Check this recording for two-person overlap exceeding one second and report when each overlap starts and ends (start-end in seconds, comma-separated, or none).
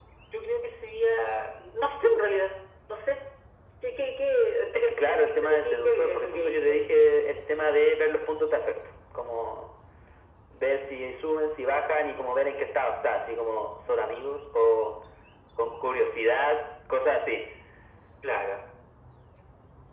4.7-6.8